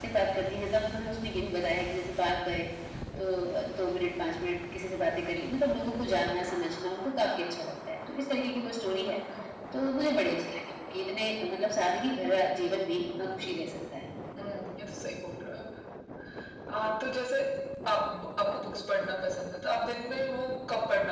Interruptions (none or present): none